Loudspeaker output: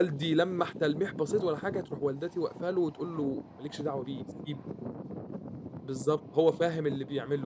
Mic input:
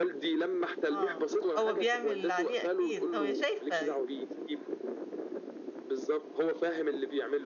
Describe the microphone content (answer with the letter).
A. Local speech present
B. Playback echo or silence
A